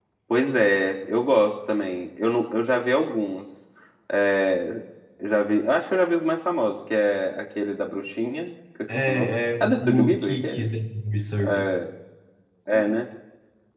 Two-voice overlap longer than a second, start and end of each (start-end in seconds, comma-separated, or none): 8.9-10.7